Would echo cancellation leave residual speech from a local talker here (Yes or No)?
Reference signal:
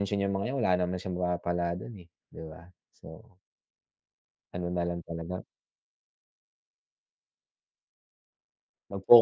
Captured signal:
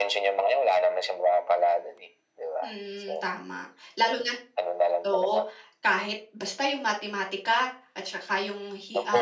Yes